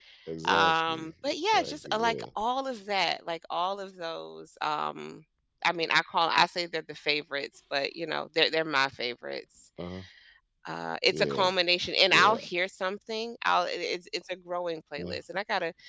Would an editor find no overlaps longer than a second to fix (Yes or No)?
No